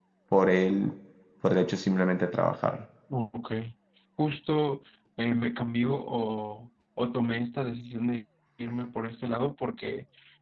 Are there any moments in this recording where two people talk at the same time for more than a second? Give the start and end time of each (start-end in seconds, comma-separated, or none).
none